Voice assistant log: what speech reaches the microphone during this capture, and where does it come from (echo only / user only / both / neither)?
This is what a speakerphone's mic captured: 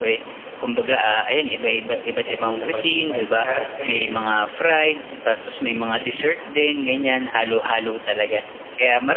both